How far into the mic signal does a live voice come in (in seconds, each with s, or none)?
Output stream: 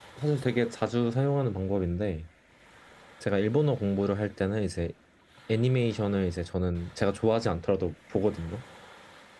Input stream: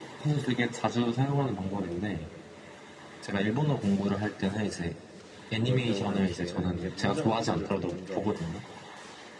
5.6 s